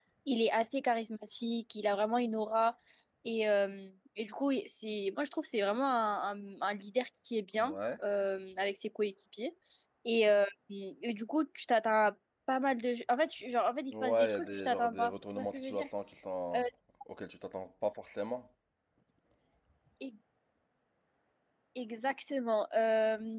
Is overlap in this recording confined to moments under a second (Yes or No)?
No